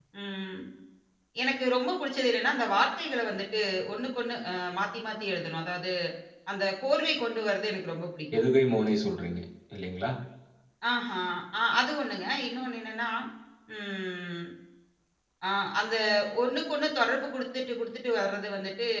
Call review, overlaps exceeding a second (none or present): none